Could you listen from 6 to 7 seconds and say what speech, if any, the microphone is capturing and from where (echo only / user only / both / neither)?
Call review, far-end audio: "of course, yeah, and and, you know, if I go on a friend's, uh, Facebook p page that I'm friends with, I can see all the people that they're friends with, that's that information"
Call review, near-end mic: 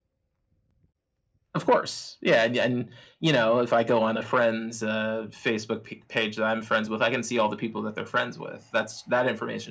echo only